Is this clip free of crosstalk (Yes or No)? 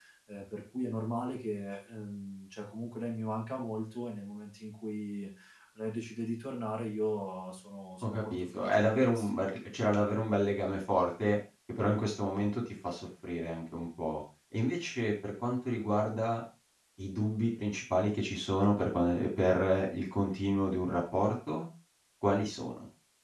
No